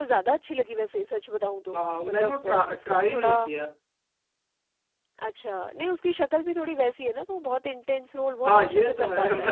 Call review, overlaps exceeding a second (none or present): present